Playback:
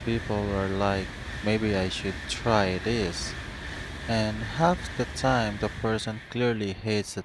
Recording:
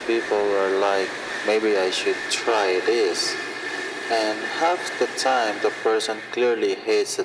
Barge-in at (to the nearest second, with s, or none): none